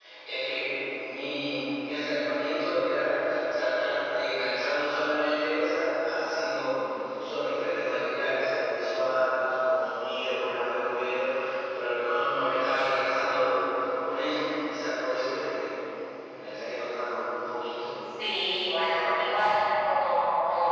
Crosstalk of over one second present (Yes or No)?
No